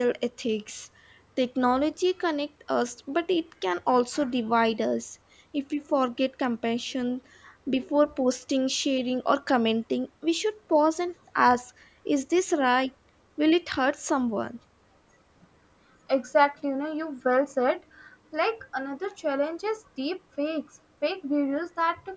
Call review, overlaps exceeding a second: none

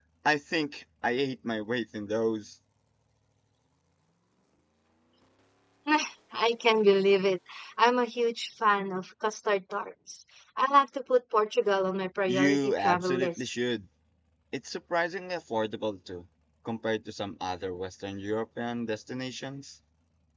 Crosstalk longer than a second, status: present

